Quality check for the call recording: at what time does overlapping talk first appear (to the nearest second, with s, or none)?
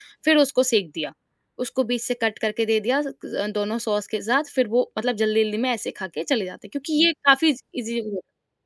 none